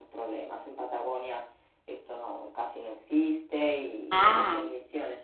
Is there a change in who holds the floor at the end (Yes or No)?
No